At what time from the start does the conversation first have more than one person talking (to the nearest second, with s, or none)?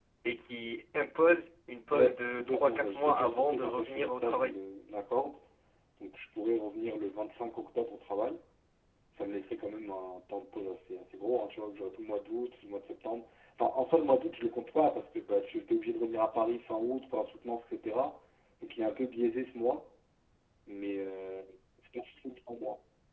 2 s